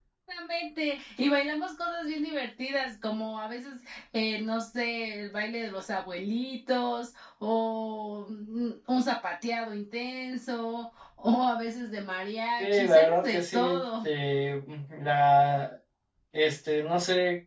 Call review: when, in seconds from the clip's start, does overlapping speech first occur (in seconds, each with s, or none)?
12.6 s